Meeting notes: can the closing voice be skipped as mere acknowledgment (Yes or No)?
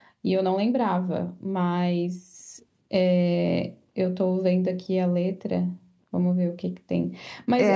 No